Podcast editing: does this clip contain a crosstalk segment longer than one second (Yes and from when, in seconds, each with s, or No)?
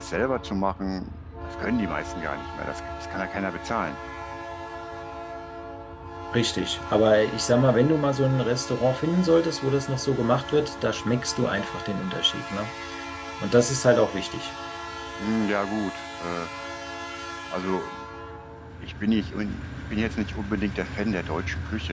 No